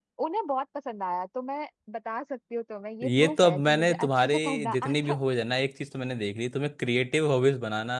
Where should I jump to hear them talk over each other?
3.0 s

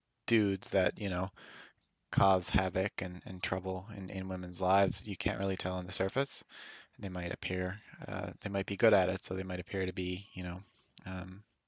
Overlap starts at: none

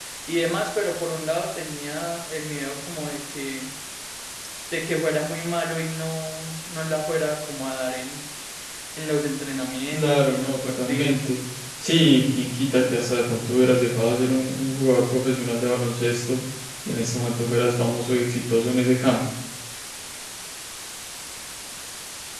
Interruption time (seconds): 9.9 s

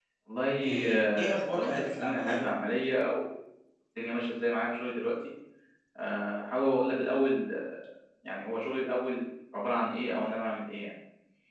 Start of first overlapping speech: 0.6 s

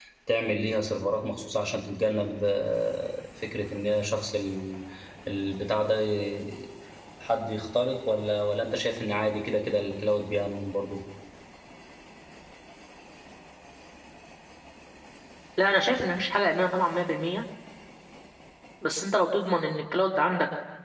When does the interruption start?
none

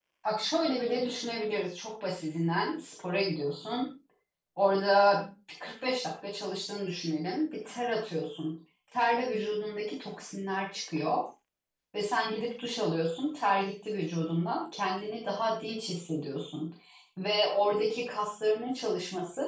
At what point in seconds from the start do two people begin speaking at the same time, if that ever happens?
none

